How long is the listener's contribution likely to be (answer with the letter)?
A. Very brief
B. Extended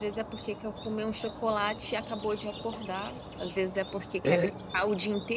A